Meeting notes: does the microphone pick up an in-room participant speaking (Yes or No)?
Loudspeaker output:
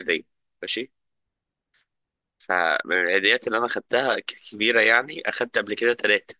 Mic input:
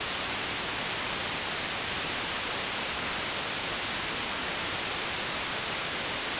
No